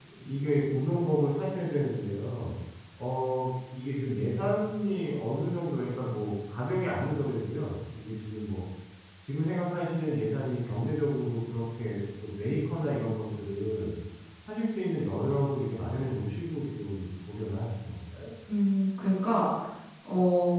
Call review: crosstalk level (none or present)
none